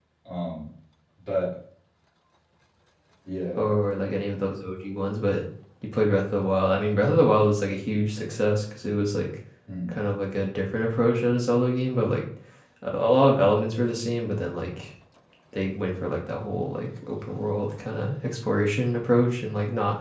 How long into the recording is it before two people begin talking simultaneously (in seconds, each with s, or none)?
none